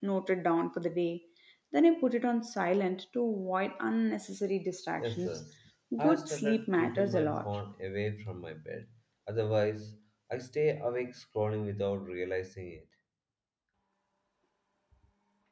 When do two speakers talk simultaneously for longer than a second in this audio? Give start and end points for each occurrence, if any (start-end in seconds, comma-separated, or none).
6.0-7.5